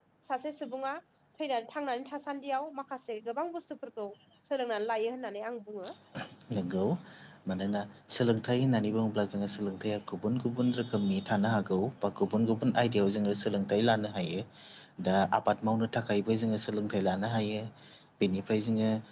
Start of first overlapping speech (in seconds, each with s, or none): none